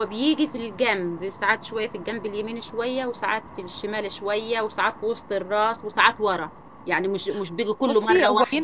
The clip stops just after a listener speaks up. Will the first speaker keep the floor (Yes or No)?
No